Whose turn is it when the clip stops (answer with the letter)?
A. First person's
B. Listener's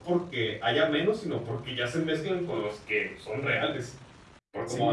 B